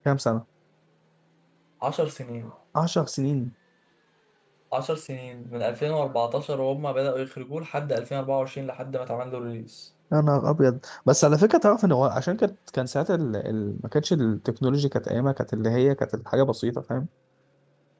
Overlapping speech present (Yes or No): No